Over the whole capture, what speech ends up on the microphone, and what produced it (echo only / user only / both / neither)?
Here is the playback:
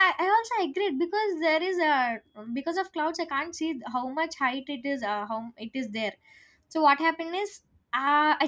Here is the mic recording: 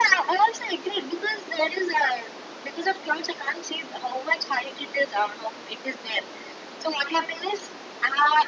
echo only